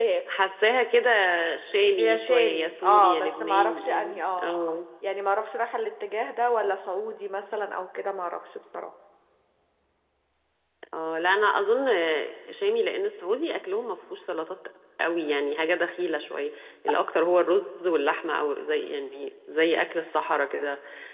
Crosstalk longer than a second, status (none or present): present